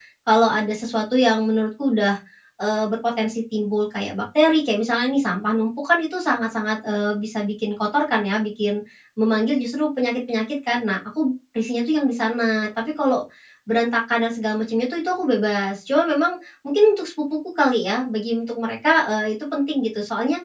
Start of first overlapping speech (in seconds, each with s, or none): none